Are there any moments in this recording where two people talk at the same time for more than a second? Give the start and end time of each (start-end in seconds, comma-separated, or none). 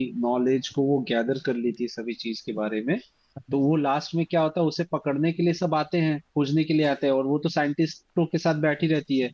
none